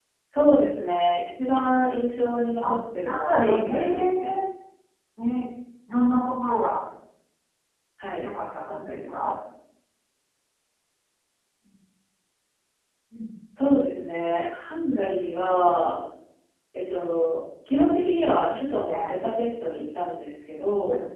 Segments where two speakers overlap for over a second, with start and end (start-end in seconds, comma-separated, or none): 3.0-4.3